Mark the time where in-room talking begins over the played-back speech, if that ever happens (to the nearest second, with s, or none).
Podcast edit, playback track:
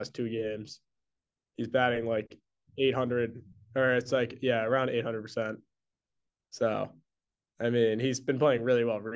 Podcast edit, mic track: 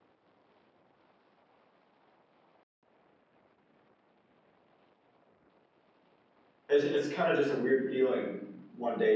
7 s